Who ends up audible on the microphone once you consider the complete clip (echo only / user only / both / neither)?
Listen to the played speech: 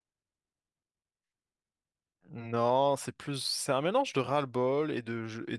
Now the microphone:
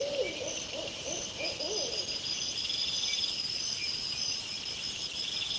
neither